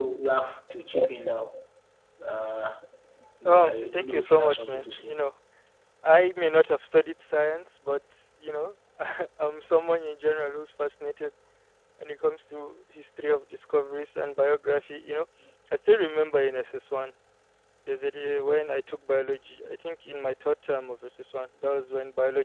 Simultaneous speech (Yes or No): Yes